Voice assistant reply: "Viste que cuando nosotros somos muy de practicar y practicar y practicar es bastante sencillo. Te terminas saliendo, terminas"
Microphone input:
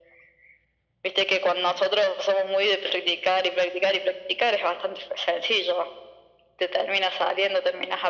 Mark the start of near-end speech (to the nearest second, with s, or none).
none